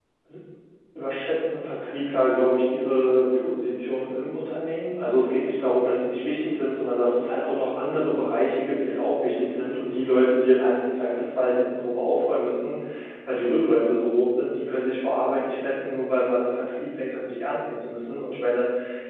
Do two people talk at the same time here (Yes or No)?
No